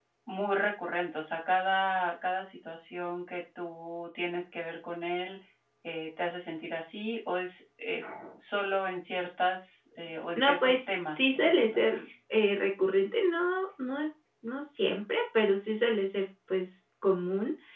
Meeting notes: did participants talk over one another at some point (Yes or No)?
Yes